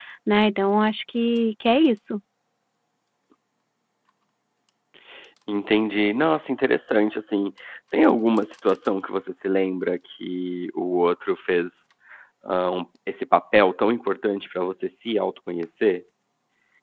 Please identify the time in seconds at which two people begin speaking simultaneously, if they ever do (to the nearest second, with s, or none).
none